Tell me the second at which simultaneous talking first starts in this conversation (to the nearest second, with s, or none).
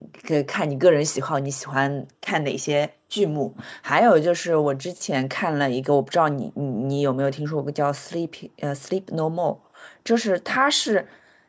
none